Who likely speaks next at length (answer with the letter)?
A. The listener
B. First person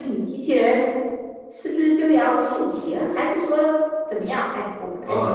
A